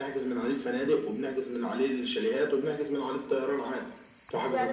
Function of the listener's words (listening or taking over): taking over